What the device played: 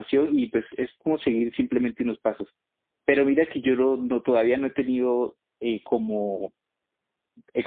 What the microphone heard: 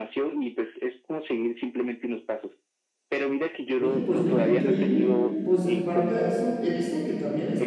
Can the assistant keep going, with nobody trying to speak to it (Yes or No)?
No